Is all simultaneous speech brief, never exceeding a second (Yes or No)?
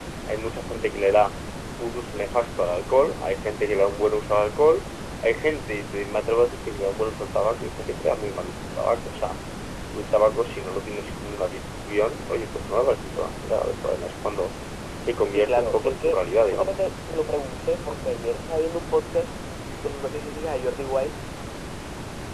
No